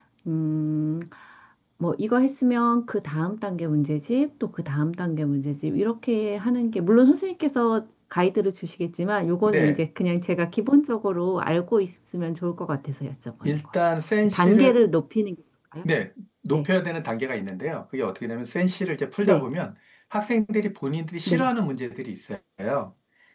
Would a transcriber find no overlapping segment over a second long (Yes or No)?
Yes